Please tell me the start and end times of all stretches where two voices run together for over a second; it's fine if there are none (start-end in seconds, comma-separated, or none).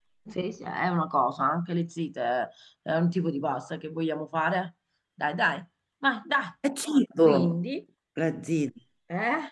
none